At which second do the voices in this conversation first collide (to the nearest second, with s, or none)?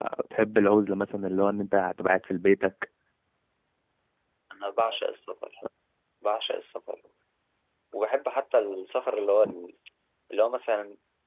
none